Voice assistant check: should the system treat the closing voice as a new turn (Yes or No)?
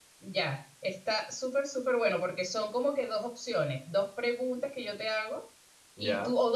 No